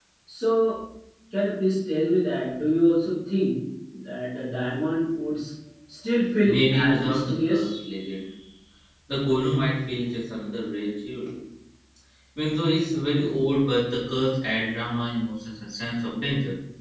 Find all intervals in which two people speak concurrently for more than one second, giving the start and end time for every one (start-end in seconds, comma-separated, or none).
6.5-7.7